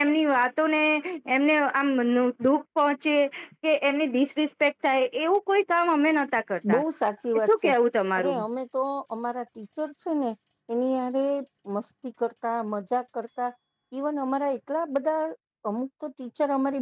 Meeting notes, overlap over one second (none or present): none